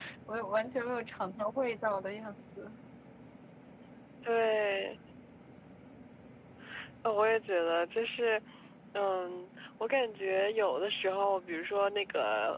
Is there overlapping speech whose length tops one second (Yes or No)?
No